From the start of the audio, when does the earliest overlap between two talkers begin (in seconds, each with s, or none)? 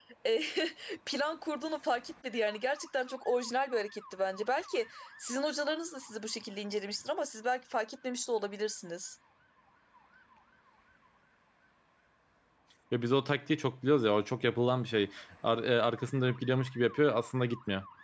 none